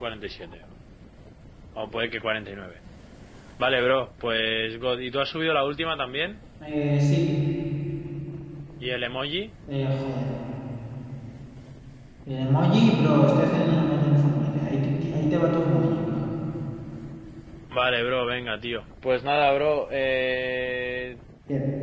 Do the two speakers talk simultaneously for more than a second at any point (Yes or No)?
No